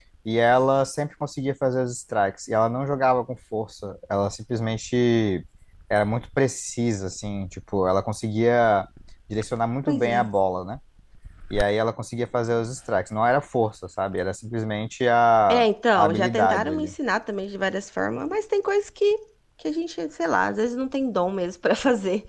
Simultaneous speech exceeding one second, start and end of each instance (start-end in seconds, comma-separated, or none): 15.5-16.9